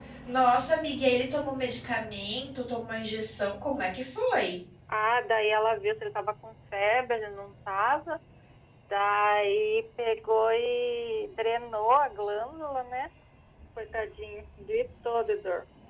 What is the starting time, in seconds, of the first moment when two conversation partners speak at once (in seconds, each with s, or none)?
none